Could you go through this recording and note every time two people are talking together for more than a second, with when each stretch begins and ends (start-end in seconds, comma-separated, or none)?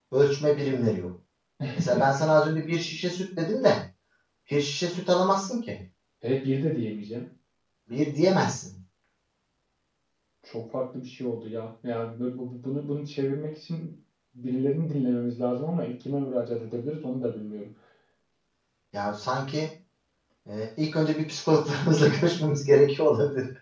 none